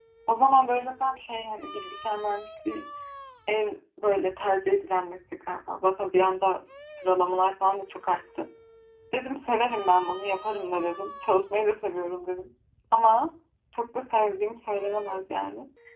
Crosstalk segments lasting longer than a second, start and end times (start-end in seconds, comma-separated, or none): none